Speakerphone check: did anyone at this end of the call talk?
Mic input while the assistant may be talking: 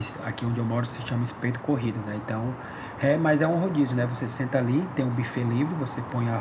No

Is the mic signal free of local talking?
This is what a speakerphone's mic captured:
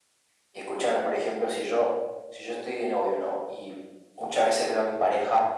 Yes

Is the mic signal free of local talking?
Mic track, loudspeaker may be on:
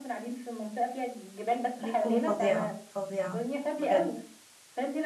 No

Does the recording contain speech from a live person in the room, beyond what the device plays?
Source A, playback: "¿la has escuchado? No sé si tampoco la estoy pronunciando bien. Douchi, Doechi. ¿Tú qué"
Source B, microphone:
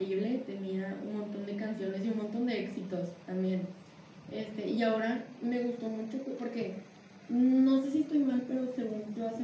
Yes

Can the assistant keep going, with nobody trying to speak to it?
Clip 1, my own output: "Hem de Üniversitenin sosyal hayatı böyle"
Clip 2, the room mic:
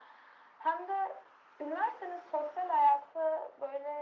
Yes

